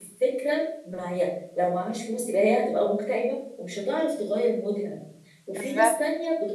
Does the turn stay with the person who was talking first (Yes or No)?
Yes